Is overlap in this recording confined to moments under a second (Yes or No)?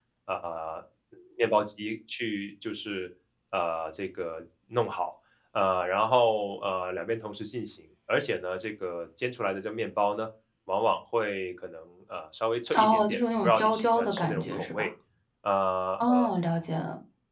No